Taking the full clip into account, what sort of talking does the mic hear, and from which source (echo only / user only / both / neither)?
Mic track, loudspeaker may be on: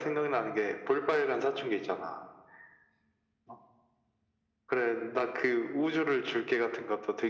echo only